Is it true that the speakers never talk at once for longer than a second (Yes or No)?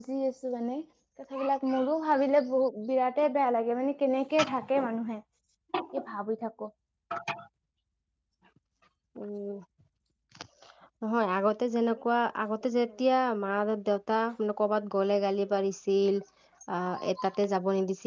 Yes